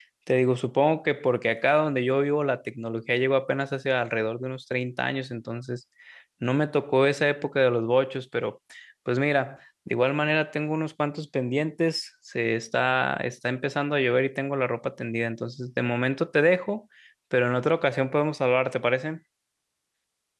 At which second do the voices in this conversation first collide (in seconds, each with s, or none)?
none